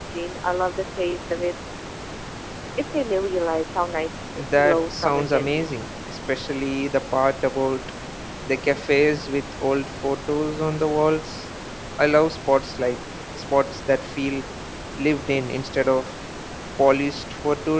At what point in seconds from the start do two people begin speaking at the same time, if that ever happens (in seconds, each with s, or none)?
4.4 s